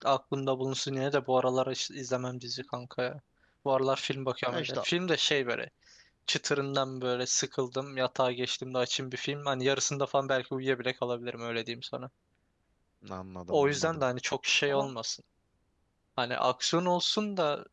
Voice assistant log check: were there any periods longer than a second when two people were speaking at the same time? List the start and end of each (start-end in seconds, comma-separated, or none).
none